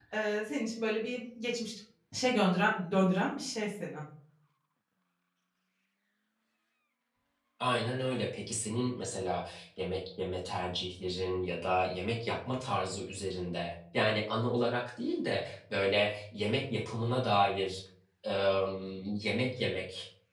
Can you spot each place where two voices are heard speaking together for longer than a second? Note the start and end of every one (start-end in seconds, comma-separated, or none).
none